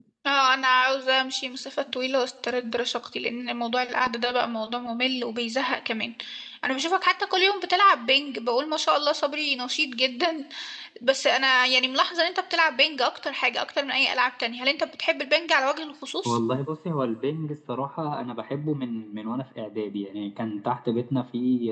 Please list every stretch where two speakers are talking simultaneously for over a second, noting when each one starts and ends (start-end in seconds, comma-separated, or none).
none